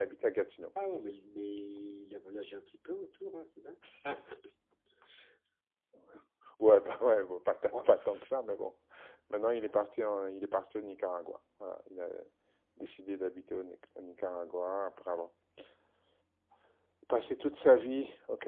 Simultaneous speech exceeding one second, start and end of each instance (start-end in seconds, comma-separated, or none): none